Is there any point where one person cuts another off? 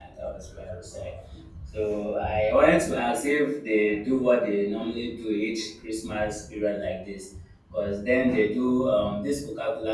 No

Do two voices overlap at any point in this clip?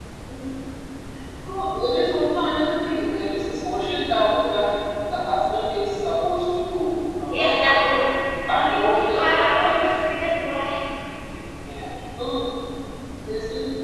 Yes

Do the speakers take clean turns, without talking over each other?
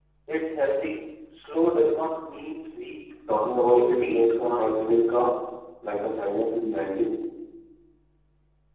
No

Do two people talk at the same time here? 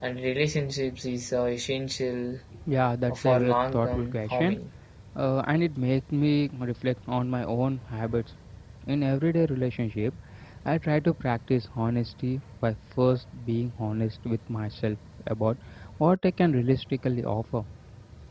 Yes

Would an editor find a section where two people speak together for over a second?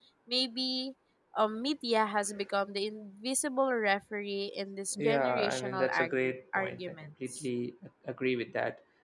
Yes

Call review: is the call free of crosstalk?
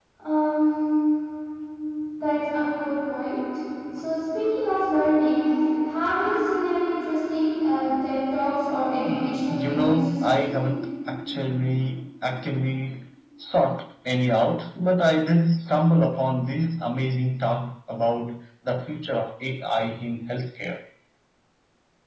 No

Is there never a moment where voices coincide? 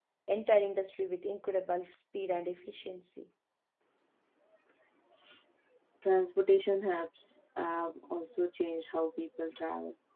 Yes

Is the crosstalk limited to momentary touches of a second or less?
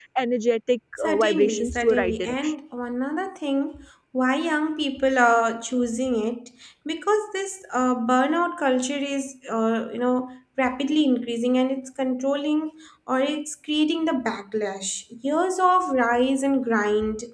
No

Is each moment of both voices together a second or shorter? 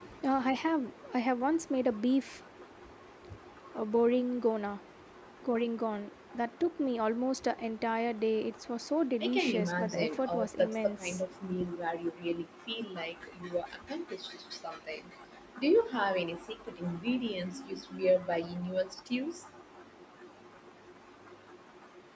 No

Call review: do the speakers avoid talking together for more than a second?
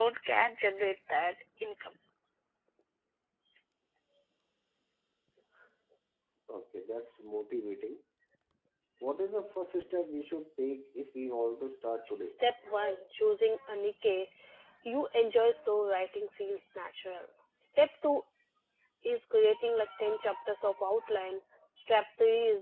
Yes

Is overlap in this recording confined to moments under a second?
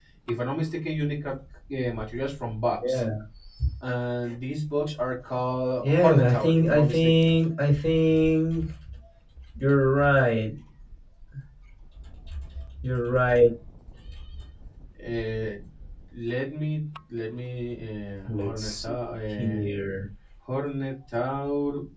No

